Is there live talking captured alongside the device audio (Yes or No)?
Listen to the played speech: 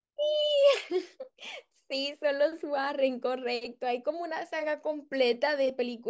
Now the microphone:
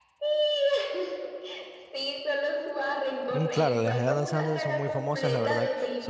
Yes